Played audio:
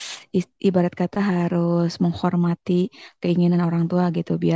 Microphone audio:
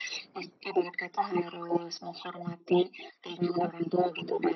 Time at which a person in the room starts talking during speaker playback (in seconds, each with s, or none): none